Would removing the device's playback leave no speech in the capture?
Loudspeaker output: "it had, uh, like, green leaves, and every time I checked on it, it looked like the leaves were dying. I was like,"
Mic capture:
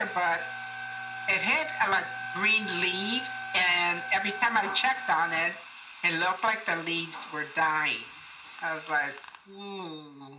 Yes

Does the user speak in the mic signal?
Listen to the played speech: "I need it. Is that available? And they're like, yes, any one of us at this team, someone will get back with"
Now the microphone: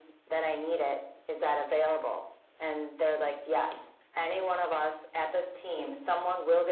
No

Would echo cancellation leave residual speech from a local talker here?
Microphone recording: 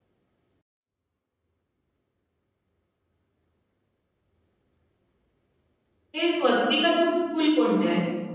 Yes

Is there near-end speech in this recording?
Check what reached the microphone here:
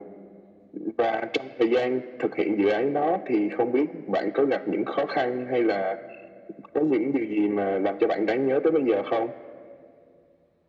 No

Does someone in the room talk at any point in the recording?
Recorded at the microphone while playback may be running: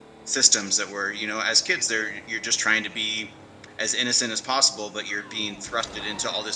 Yes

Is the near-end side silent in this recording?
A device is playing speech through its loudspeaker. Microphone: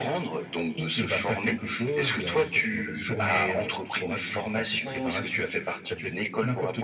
Yes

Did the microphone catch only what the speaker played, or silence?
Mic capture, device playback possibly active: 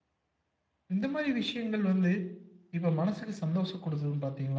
No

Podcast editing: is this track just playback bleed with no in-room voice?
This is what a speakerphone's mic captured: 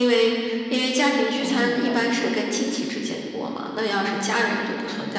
No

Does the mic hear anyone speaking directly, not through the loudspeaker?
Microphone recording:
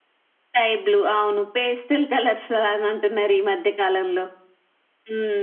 No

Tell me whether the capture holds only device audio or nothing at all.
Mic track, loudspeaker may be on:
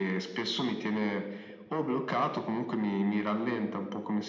Yes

